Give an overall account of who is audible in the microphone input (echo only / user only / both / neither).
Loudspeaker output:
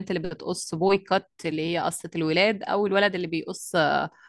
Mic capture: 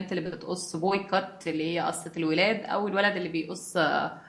echo only